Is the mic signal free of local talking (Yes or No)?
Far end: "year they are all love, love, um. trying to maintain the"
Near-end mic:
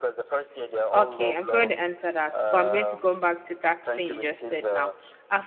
No